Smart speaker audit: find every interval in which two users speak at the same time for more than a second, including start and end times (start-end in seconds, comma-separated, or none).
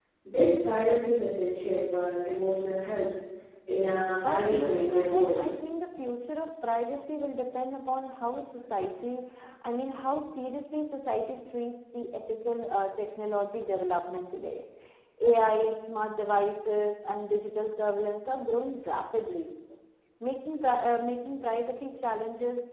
4.2-5.5